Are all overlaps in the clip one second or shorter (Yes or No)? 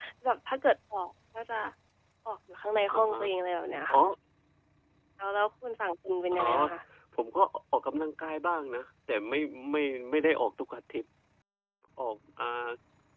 Yes